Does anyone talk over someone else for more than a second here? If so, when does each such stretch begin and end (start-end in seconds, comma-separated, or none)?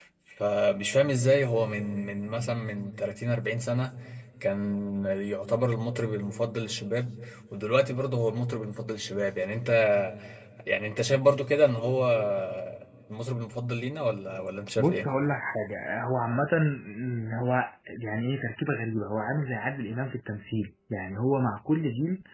none